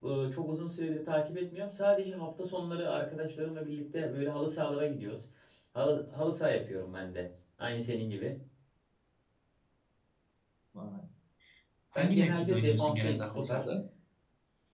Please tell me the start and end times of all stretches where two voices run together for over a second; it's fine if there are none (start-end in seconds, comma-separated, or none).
12.0-13.7